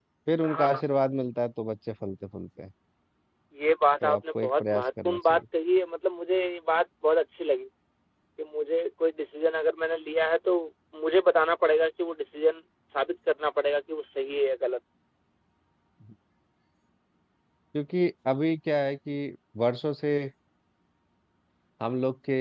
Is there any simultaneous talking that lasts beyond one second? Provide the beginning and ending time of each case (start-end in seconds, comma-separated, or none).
4.0-5.4